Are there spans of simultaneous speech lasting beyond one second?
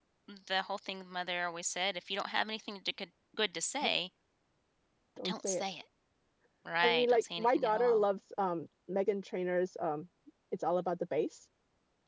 Yes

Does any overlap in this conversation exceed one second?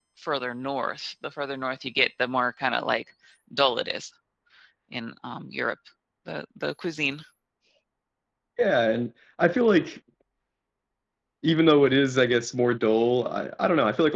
No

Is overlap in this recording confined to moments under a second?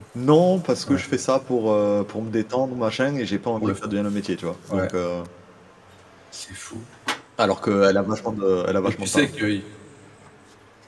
Yes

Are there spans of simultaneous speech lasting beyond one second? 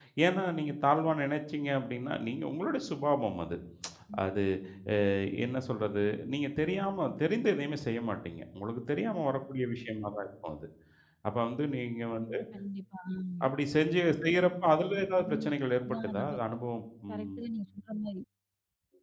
No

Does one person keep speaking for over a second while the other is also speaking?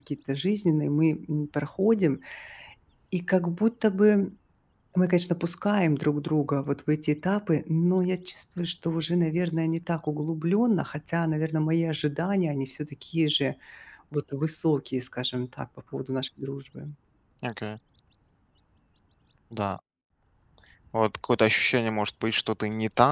No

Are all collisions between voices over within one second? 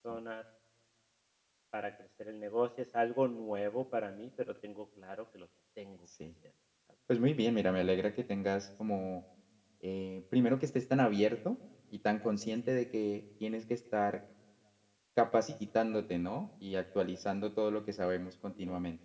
Yes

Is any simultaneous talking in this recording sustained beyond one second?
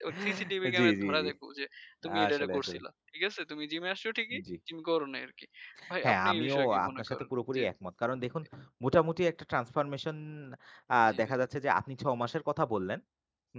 Yes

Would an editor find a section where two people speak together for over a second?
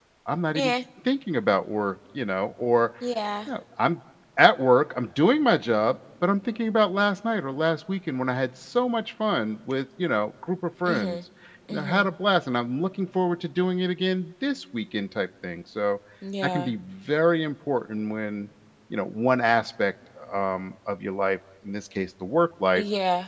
No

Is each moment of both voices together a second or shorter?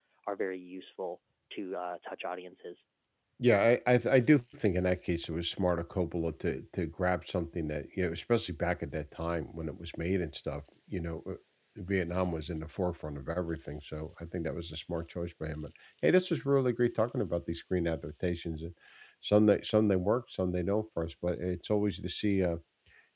Yes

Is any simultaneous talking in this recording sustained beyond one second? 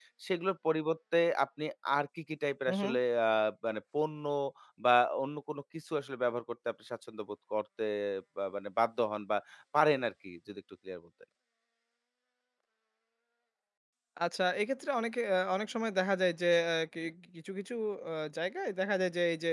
No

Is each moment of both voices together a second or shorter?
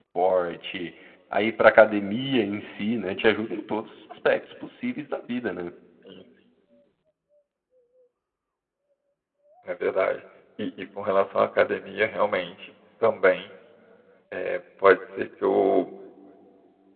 Yes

